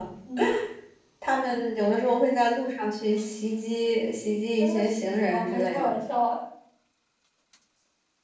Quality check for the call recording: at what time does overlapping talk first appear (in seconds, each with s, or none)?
4.6 s